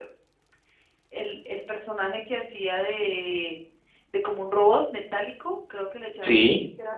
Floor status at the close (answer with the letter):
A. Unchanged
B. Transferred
A